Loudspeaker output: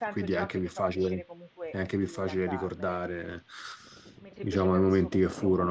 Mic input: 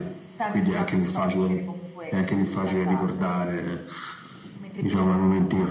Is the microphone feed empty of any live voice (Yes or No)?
Yes